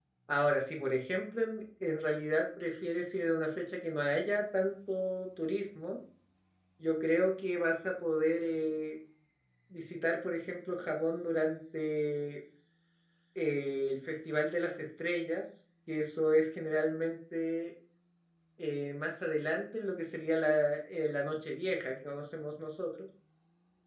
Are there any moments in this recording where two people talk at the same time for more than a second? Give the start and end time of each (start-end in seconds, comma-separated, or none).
none